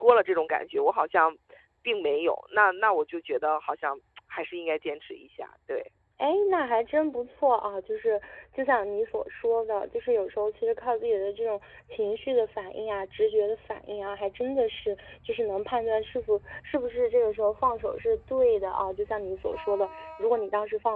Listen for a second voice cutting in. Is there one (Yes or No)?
No